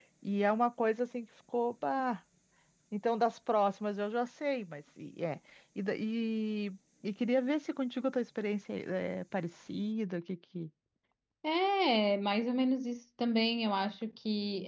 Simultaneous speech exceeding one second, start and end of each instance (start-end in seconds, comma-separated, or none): none